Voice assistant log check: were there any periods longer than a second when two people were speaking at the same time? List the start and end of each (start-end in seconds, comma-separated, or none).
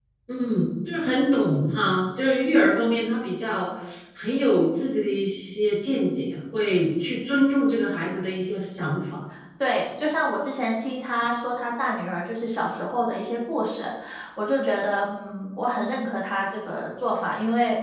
none